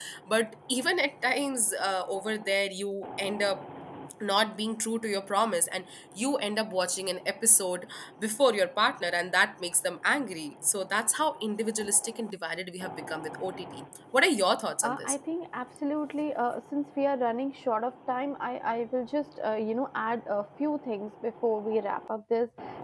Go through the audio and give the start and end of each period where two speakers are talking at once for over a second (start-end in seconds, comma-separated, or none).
none